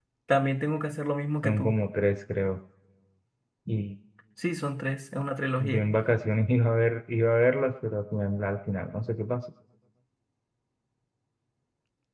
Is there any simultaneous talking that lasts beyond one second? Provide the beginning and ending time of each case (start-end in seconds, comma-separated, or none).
none